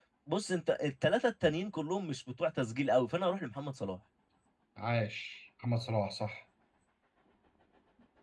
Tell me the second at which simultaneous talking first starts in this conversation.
none

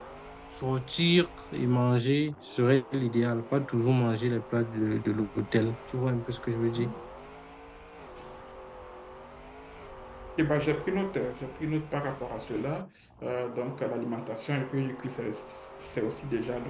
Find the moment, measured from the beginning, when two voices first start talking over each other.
none

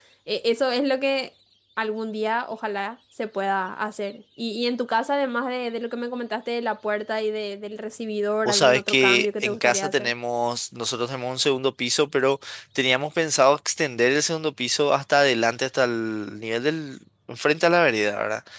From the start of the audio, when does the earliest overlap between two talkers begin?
8.4 s

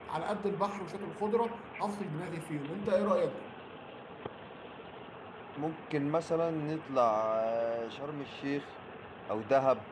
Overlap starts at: none

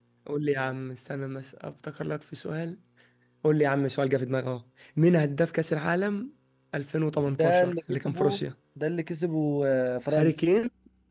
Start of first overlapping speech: 7.1 s

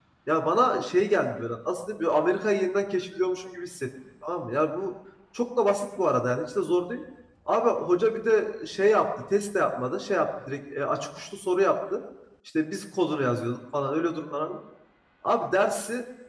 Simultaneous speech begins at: none

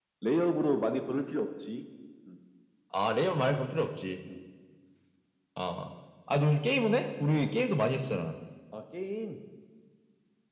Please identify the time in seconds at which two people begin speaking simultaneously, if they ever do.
none

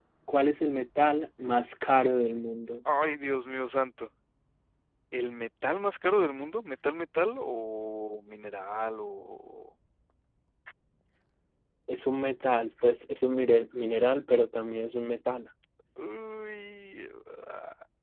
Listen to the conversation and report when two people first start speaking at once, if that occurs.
none

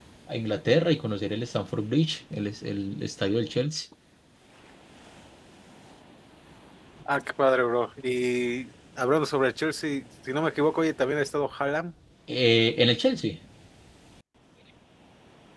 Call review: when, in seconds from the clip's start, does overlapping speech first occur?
none

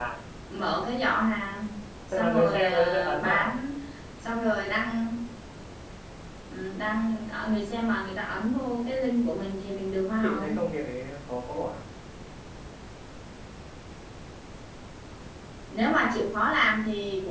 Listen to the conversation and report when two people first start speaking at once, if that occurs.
2.1 s

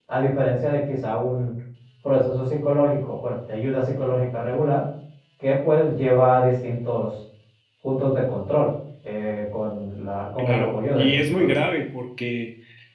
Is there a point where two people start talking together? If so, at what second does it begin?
10.4 s

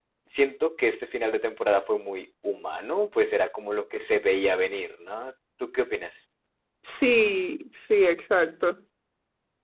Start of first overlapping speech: none

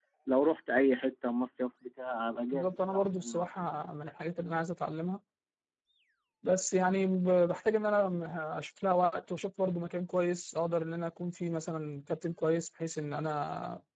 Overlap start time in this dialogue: 2.5 s

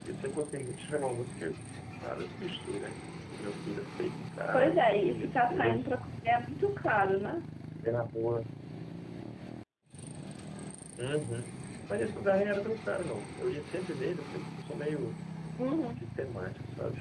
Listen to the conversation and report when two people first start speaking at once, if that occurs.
4.5 s

